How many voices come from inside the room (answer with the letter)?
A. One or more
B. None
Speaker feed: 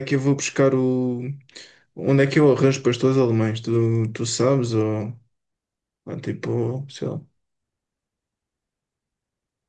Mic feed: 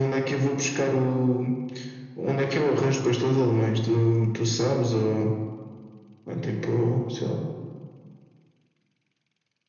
B